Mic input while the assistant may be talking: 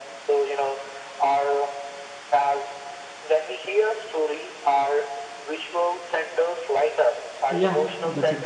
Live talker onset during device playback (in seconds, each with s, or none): 7.5 s